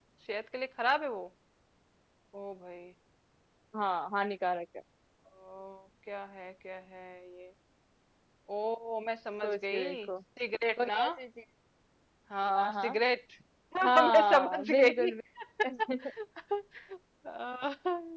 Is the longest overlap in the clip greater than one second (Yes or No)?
Yes